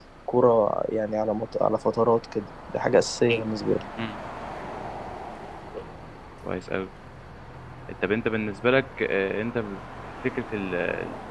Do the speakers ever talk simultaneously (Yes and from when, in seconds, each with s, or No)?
No